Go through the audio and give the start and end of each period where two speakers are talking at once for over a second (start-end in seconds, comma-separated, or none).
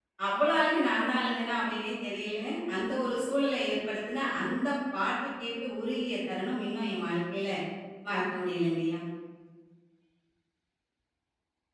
none